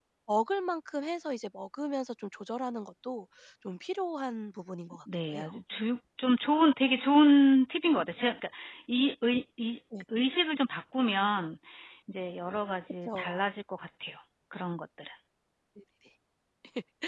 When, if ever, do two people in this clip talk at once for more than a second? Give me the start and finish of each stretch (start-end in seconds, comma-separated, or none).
none